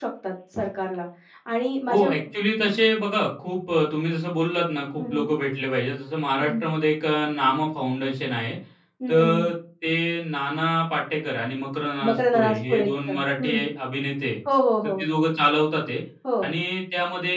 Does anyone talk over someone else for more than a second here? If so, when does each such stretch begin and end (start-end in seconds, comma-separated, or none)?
12.1-13.5